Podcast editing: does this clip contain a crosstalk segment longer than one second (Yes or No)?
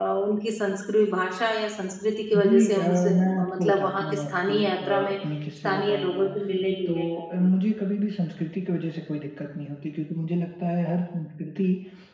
Yes